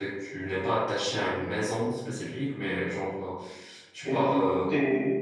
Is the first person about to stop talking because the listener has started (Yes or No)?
Yes